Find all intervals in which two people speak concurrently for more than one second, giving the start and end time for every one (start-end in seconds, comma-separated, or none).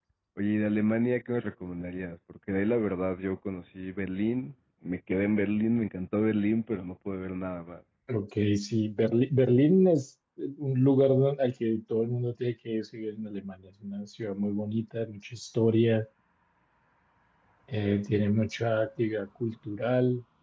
none